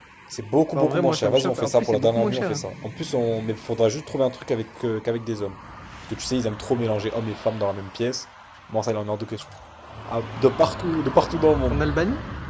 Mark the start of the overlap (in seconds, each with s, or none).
0.8 s